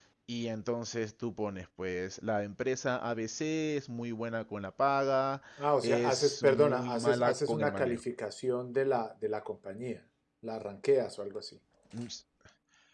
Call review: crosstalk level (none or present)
present